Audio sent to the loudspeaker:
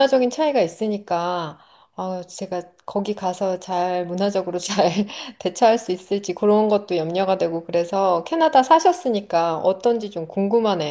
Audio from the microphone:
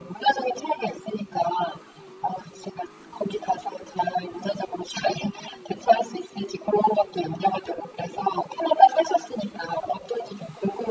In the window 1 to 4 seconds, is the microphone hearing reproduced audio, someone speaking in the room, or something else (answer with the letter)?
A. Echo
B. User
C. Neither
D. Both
A